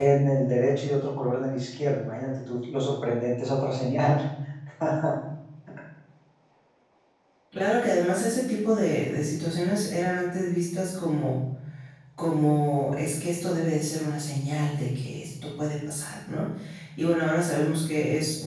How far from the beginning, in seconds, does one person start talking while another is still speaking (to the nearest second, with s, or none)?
none